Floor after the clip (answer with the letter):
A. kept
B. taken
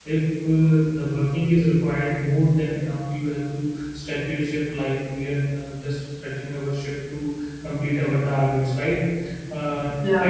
A